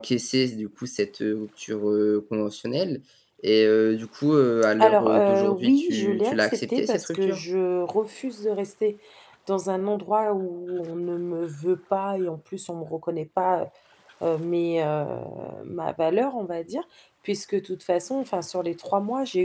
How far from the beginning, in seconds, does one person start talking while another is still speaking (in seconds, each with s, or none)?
4.8 s